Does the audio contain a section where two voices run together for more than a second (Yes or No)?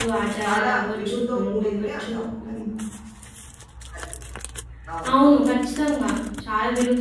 Yes